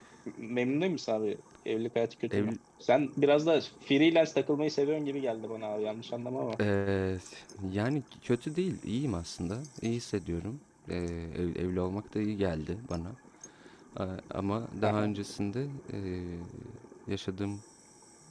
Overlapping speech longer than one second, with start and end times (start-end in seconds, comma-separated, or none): none